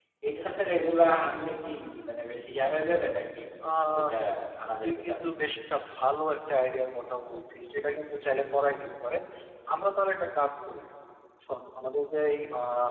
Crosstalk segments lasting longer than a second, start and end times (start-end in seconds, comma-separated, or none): none